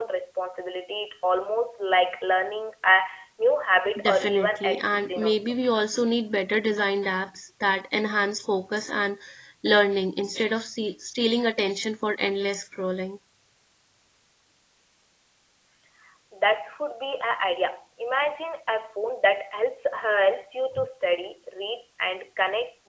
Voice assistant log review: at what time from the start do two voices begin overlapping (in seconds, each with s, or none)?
4.0 s